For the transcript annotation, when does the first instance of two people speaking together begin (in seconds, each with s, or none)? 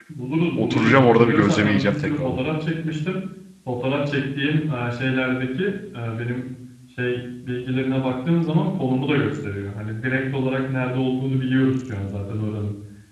0.6 s